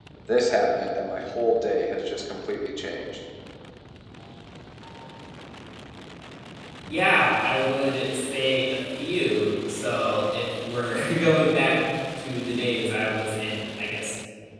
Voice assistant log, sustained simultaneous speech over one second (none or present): none